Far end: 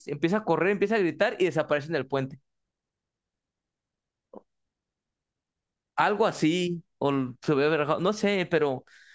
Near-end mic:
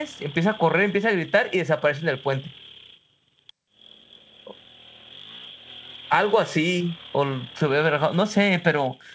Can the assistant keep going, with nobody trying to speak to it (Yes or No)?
Yes